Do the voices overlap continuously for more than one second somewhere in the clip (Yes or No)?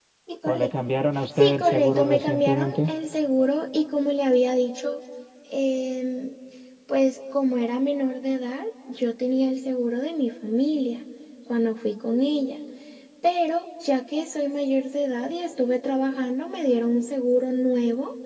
Yes